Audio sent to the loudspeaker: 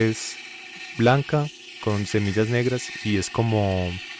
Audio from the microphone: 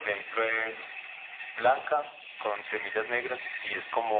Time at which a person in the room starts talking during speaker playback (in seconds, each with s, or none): none